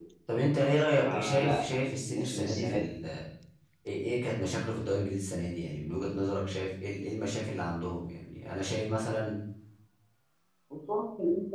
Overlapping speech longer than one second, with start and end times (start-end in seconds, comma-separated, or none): 0.9-2.8